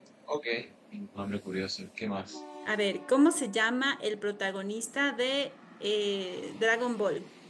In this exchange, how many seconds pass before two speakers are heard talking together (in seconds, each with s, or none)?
none